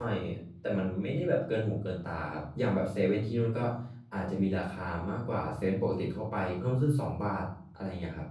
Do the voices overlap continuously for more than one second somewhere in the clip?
No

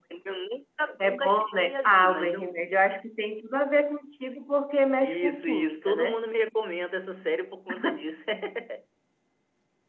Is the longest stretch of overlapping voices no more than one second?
No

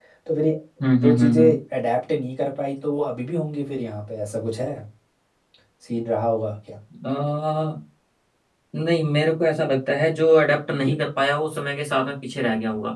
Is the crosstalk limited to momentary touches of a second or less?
Yes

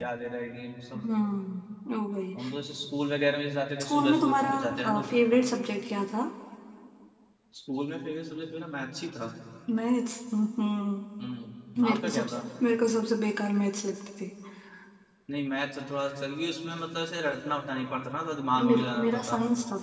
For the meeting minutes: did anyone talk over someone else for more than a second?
Yes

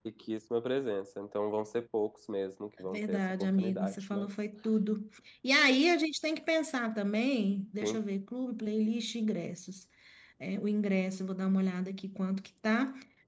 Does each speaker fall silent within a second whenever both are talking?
No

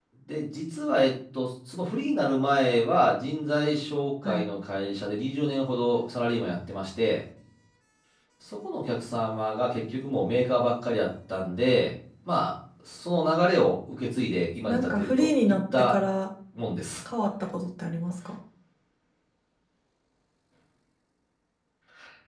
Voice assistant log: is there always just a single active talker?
No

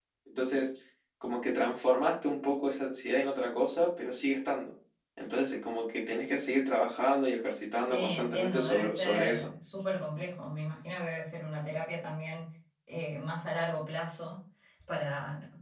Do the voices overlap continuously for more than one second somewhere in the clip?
Yes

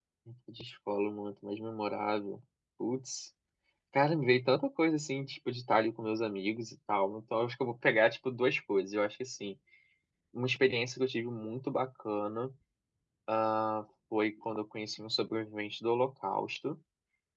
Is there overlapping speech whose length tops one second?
No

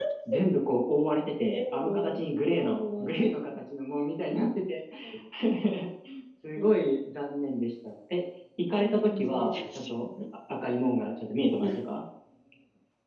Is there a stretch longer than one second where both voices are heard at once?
Yes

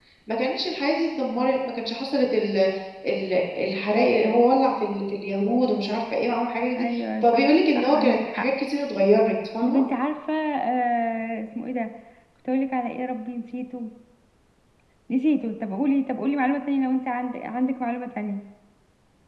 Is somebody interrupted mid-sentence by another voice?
Yes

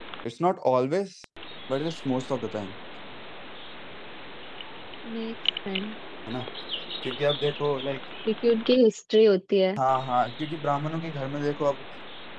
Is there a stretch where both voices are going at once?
No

